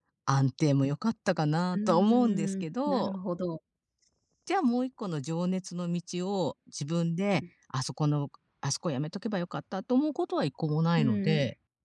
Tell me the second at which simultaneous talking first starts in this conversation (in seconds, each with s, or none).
1.7 s